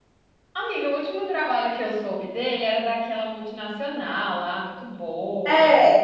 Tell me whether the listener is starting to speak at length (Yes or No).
Yes